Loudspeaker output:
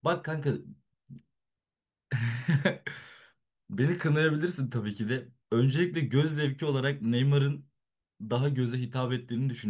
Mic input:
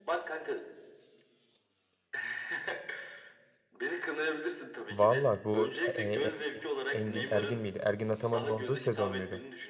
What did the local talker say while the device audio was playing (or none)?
Valla bu e, E, Engin Engin Ergin miydi? Ergin Ataman'ın olduğu sezon muydu?